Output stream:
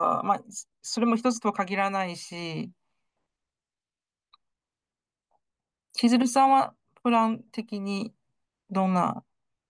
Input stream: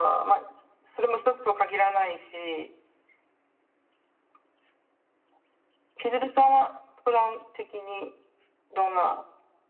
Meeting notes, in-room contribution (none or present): none